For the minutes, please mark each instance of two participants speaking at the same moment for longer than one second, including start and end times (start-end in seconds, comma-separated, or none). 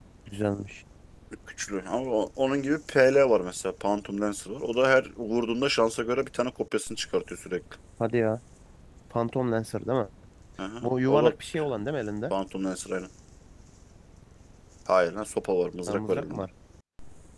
none